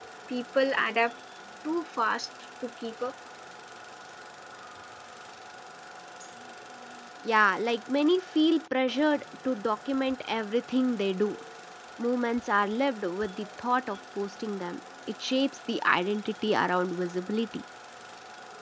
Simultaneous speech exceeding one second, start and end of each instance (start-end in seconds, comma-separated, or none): none